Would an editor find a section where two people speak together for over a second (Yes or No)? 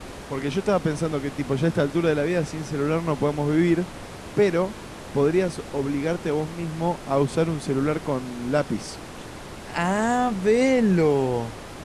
No